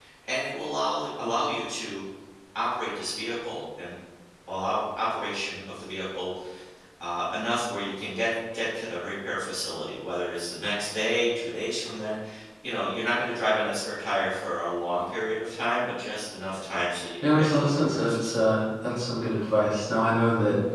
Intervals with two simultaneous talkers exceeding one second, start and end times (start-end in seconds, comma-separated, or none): 17.3-18.6